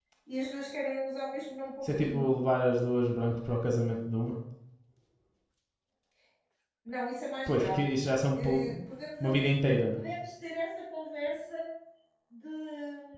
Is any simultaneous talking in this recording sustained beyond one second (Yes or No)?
No